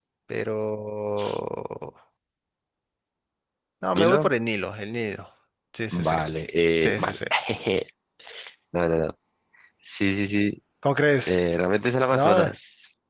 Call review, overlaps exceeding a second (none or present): none